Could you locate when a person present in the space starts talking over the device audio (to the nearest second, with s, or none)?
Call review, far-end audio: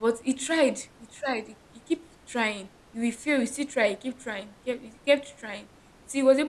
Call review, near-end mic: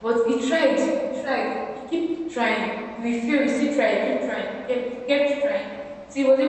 none